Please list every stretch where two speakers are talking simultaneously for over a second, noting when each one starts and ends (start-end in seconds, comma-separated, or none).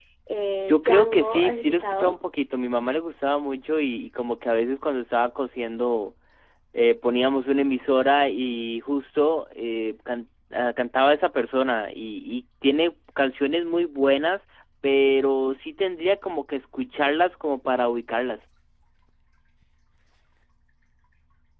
0.7-2.1